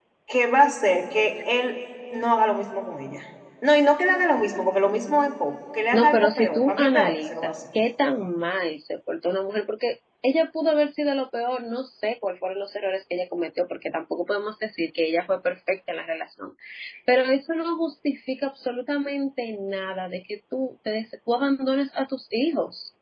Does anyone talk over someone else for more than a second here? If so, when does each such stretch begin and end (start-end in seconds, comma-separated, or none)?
5.9-7.6